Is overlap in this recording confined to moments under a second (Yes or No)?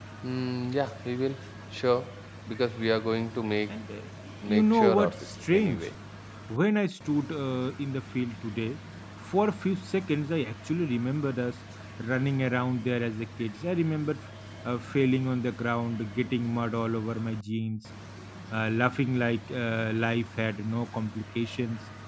No